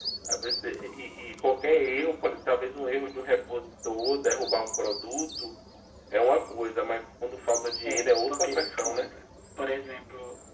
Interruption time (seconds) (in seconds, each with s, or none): 7.8 s